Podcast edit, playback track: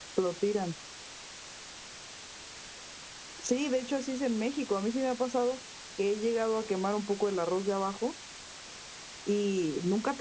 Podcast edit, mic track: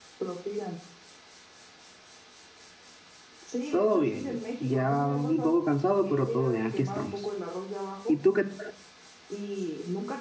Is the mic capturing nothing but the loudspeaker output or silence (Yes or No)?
No